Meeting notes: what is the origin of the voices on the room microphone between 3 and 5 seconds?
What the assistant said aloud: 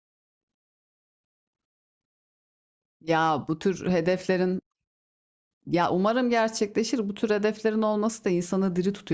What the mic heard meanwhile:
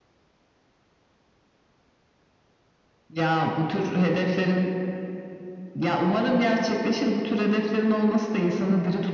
echo only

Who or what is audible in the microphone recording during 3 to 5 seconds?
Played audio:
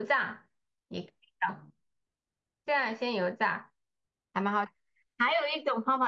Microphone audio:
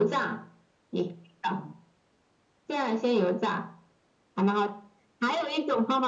echo only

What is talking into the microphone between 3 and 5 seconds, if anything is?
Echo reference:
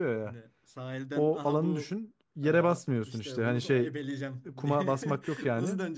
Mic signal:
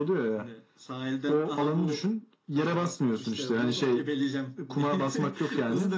echo only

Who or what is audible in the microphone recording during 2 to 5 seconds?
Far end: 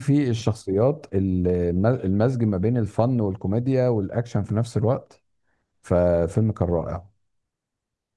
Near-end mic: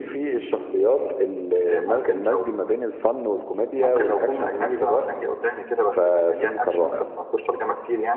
both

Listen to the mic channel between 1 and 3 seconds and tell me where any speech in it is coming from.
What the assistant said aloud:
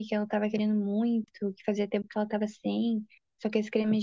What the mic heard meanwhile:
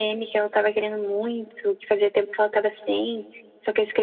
echo only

